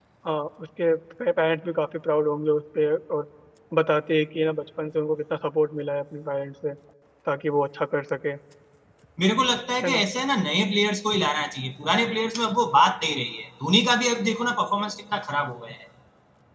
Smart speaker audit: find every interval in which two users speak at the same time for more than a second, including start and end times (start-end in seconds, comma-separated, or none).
none